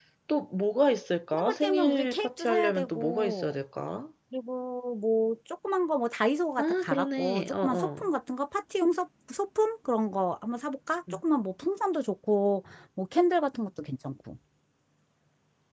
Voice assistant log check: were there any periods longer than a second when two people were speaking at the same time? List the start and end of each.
1.3-3.6, 6.6-8.1

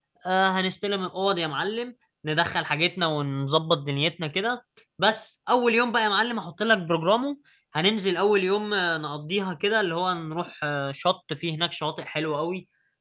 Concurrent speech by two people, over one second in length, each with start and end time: none

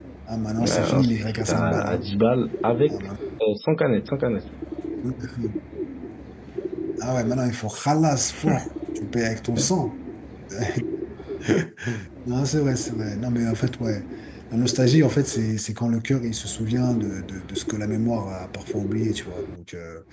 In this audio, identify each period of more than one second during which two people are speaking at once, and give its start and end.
0.6-2.0

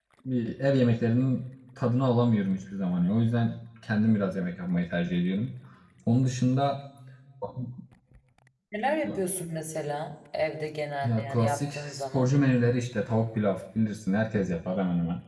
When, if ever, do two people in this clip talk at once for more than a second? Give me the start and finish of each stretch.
11.0-12.3

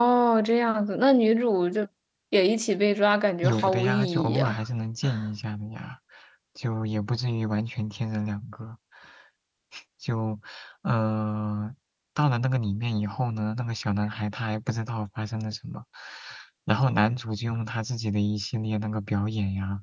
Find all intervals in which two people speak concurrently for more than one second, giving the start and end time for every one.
3.4-4.7

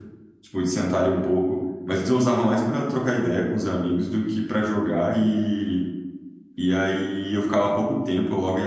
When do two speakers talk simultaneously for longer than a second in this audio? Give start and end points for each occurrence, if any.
none

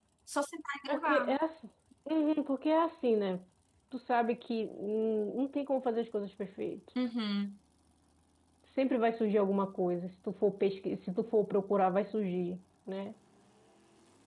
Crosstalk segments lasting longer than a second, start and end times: none

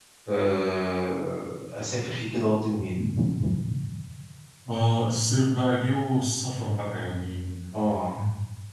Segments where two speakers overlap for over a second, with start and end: none

